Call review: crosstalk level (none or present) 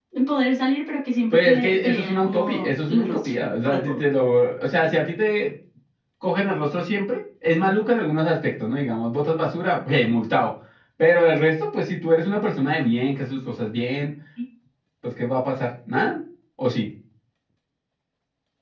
present